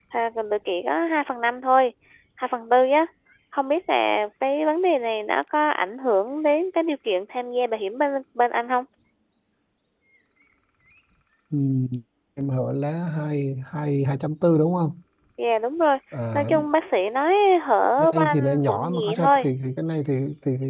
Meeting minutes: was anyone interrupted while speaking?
Yes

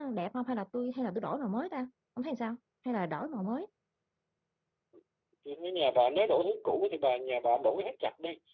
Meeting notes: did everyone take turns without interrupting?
Yes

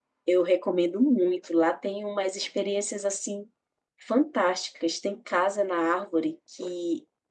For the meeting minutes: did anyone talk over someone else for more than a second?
No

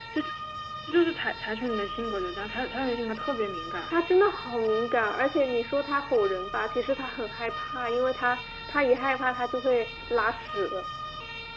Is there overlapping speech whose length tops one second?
No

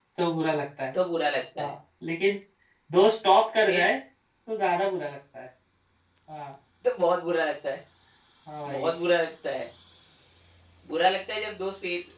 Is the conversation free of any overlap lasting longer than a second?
Yes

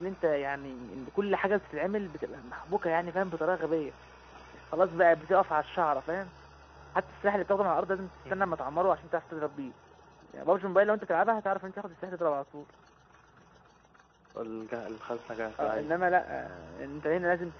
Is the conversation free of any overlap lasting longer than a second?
Yes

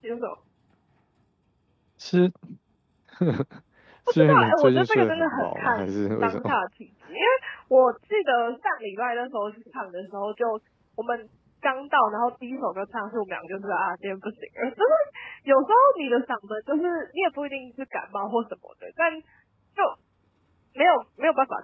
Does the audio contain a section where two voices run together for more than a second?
Yes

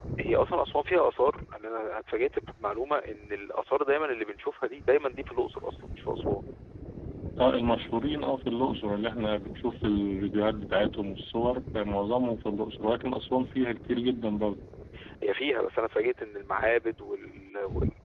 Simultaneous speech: No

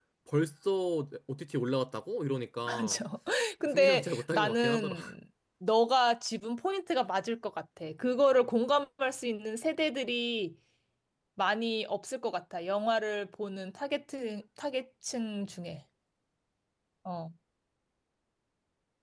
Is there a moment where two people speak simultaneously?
Yes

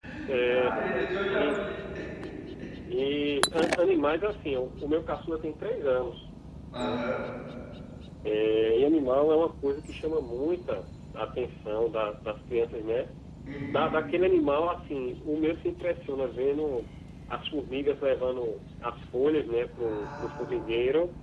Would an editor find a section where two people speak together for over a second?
Yes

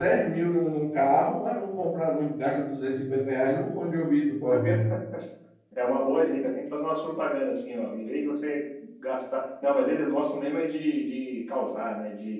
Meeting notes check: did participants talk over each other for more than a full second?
No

